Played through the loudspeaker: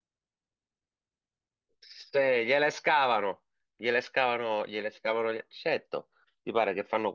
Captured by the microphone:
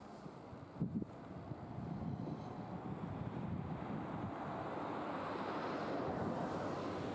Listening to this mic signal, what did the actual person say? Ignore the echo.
none

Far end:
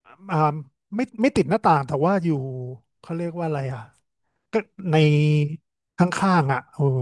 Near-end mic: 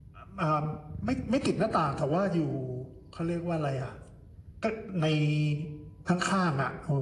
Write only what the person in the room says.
none

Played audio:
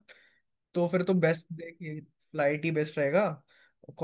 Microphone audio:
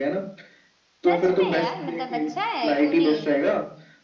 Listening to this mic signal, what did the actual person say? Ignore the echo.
सच में यार मतलब अच्छा है क्यों नहीं

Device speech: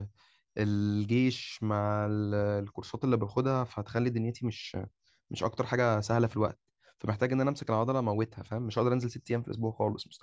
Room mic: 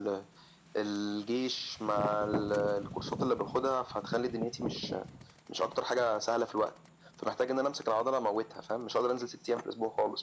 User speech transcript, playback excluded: none

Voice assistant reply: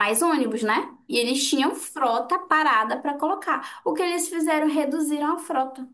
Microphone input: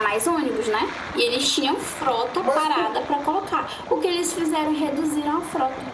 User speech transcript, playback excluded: Mas com.

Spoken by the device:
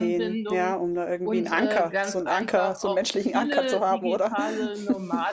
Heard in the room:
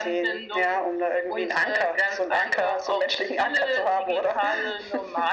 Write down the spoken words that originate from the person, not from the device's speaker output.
none

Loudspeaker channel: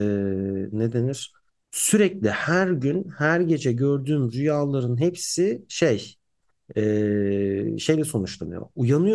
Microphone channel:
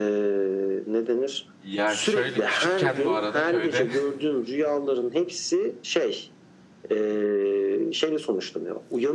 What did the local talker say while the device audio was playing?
ya şöyle küçükken bu arada köyde

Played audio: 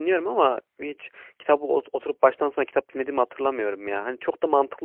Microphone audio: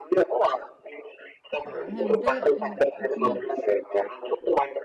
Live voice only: E, Hem de hani, okumak

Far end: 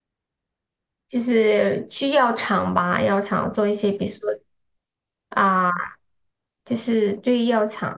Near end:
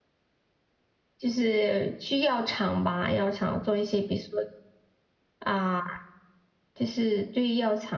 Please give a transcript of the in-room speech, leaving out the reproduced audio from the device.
none

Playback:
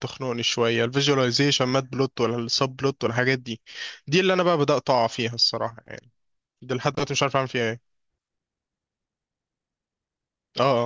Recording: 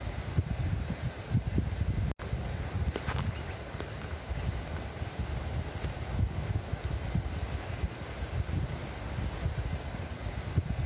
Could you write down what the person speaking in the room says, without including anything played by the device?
none

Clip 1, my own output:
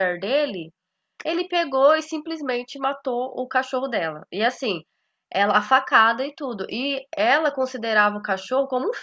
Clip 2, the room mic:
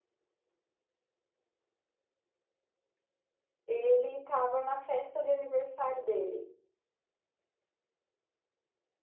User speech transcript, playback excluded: Ele estava na festa de aniversário dele,

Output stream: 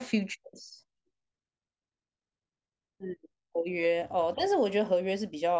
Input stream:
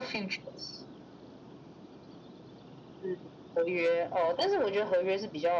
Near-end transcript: none

